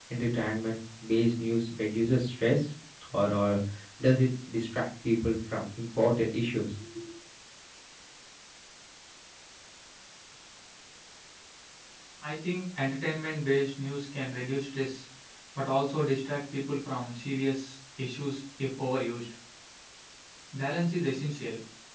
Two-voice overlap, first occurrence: none

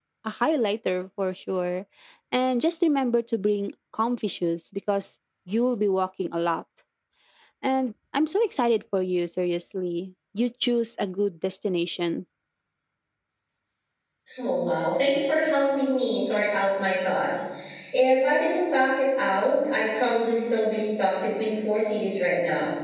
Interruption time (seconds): none

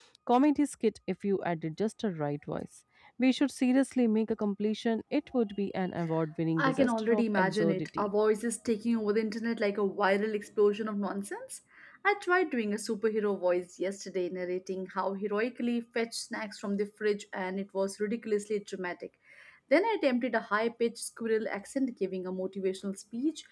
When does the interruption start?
6.6 s

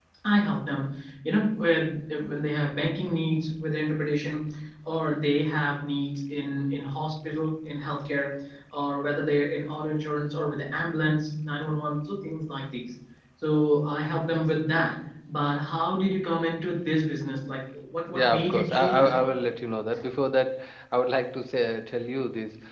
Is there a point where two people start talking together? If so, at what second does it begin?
18.1 s

